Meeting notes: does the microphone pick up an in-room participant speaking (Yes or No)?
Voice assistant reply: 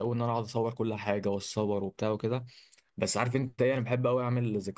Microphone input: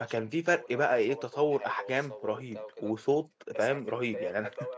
Yes